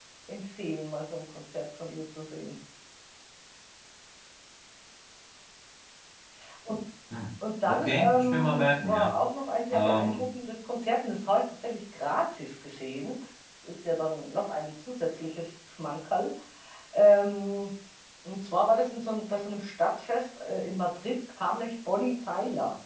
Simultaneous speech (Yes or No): Yes